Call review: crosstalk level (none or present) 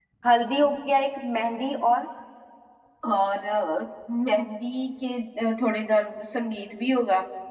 none